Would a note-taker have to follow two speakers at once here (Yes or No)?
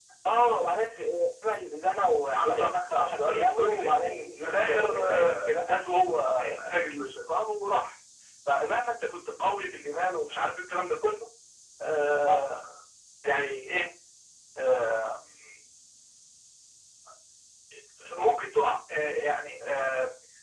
Yes